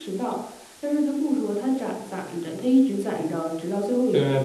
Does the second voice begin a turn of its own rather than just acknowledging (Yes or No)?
Yes